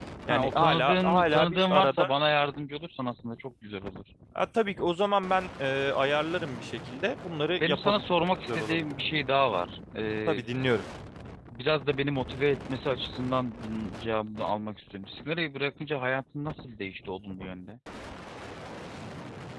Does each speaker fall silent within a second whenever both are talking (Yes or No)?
No